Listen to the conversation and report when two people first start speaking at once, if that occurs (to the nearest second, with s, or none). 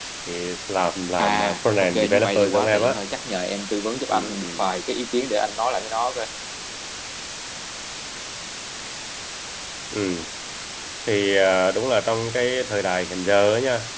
1 s